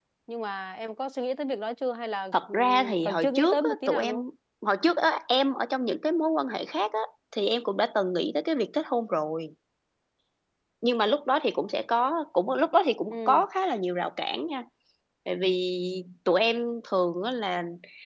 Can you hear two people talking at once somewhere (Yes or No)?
Yes